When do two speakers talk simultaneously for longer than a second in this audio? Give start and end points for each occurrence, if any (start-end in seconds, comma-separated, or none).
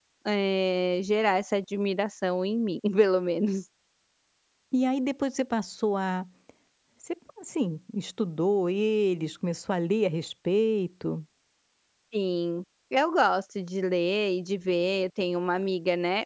none